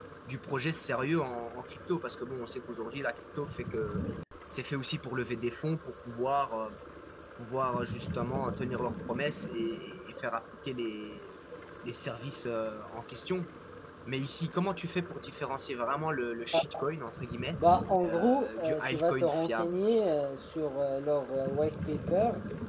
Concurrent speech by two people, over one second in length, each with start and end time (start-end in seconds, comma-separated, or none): 18.0-19.8